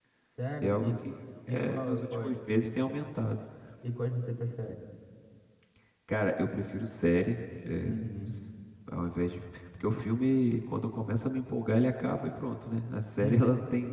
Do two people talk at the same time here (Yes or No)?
Yes